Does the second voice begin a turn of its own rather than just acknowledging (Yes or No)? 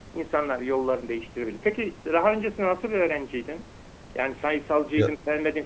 No